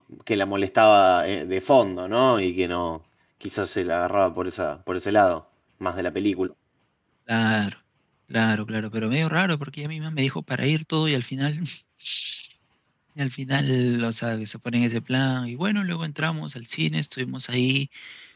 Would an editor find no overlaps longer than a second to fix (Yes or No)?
Yes